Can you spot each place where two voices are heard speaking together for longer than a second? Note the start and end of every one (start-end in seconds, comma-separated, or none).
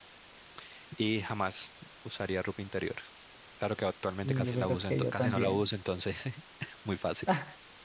4.2-5.6